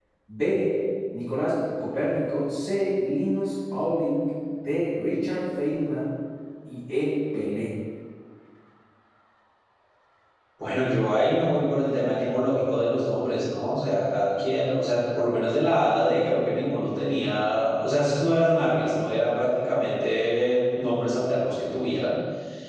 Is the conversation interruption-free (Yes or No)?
Yes